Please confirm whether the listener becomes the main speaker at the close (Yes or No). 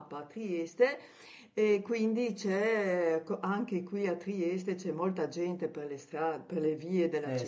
No